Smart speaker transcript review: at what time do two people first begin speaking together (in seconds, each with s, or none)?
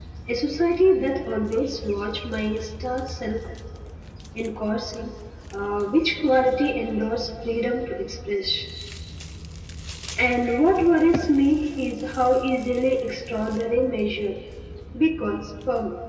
none